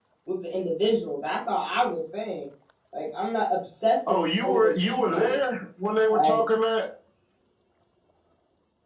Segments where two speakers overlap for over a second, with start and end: 4.1-5.4

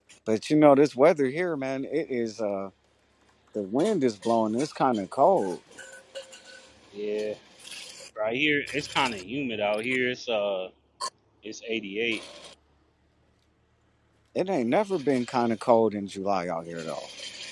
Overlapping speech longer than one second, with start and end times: none

